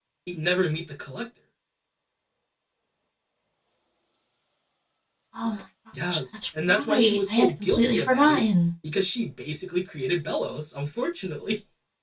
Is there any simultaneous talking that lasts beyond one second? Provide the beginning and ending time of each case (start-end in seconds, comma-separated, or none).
6.9-8.4